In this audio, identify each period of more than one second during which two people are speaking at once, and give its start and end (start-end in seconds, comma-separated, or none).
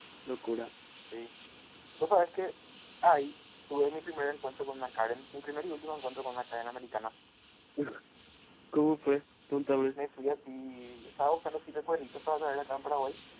none